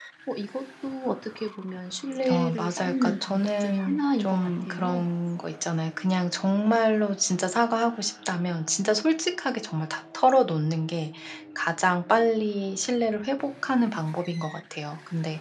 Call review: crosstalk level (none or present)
present